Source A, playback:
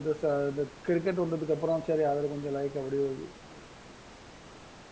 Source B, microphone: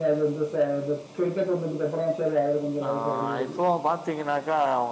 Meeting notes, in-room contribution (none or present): present